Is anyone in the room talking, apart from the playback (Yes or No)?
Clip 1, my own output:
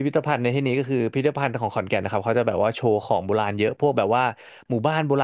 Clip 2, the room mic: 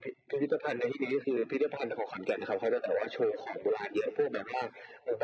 No